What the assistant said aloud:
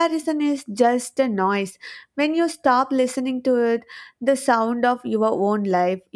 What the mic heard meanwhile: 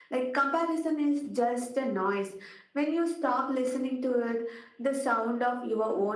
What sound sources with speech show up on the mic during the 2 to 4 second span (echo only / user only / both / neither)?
echo only